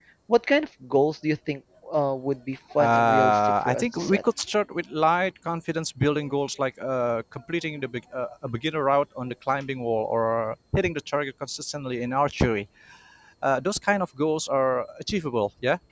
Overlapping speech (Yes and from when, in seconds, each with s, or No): Yes, from 2.7 s